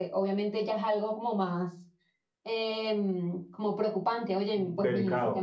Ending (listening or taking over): taking over